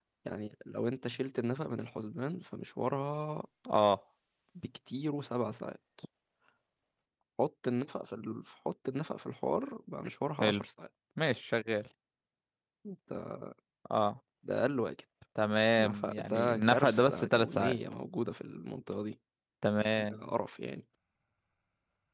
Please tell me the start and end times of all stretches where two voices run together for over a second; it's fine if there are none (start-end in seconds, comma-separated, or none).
15.8-17.8